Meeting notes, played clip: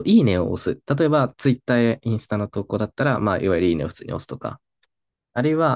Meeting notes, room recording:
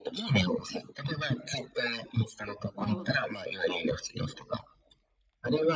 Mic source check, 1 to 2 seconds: echo only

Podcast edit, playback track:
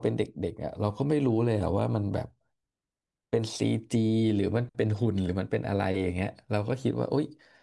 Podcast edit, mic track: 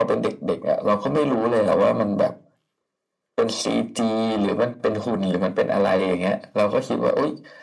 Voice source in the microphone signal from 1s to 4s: echo only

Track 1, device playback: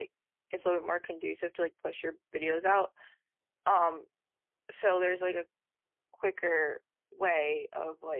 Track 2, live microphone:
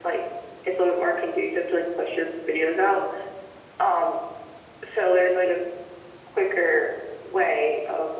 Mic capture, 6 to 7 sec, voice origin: echo only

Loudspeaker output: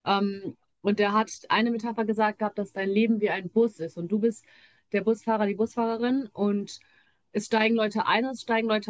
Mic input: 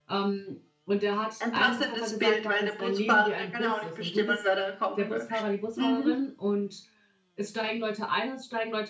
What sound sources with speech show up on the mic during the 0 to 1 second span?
echo only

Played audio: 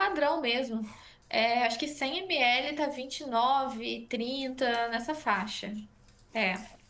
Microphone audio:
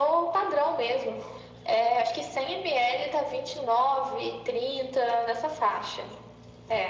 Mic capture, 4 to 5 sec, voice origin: echo only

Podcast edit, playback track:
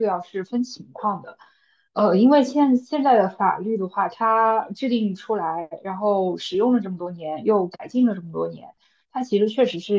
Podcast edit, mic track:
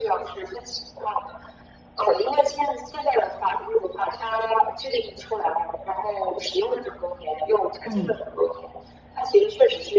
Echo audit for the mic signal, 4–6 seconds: echo only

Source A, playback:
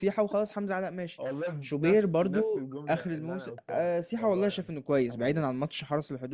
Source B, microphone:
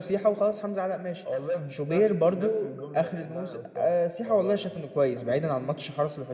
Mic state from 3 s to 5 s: echo only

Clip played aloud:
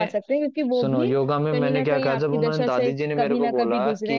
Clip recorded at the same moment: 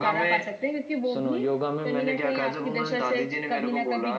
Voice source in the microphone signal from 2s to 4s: echo only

